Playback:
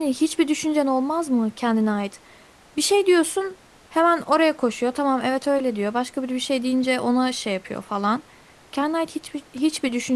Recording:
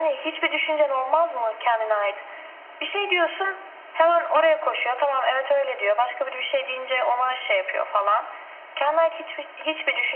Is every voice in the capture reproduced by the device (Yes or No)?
Yes